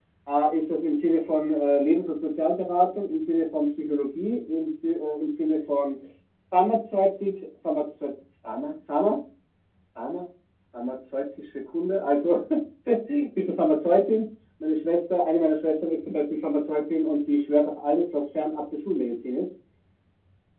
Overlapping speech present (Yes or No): No